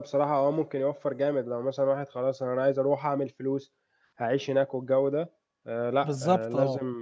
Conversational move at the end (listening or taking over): listening